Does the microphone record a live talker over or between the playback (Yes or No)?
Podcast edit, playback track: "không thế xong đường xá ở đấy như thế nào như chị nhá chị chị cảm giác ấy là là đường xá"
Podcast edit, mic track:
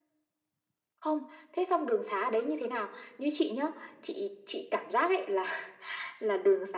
No